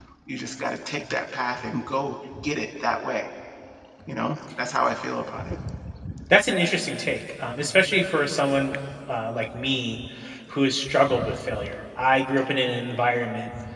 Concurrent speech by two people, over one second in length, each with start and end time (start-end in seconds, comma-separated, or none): none